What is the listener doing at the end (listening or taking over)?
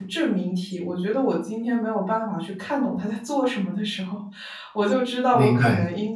listening